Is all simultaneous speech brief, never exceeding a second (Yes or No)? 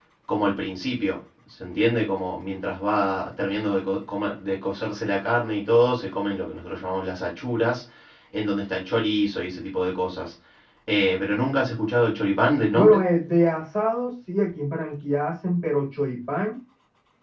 Yes